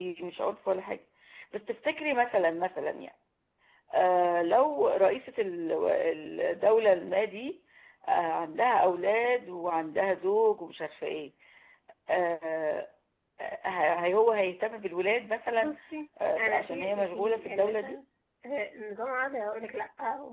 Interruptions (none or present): present